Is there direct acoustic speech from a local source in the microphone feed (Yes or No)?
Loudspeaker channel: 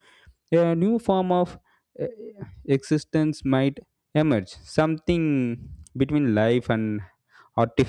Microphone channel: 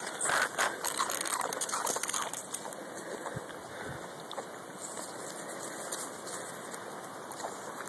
No